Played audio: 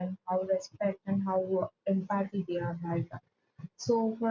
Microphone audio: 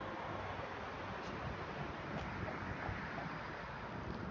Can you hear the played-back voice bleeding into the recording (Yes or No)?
No